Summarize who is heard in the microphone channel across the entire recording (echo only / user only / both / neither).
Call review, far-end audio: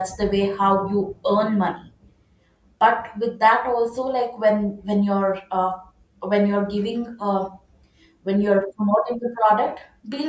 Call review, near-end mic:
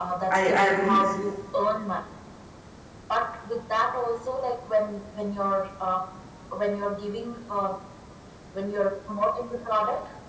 both